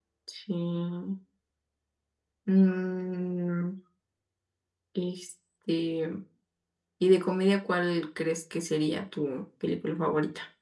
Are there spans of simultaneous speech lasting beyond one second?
No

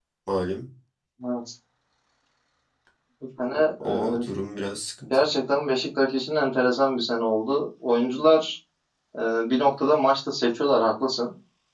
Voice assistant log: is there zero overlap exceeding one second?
Yes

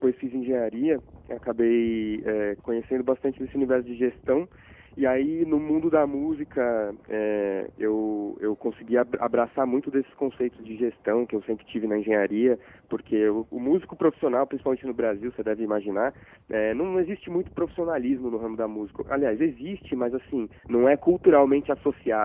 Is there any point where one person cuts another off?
No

